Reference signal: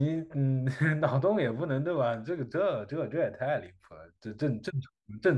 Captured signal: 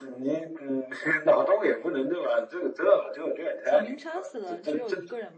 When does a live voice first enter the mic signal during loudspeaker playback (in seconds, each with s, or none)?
3.6 s